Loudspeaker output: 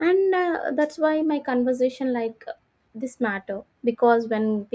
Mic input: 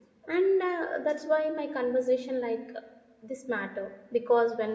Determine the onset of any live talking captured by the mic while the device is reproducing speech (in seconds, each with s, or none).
none